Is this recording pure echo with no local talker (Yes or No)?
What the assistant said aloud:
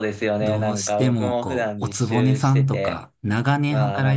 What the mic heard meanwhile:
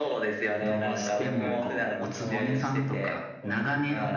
No